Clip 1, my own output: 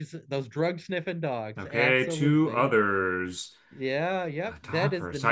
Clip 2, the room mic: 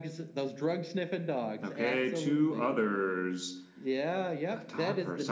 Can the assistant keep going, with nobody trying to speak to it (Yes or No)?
Yes